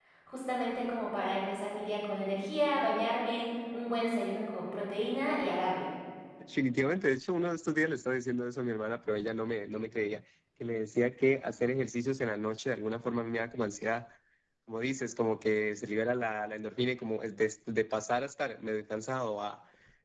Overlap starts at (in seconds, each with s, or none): none